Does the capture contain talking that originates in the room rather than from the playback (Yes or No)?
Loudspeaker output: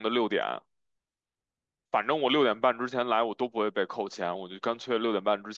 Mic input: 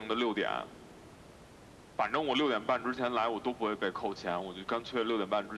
No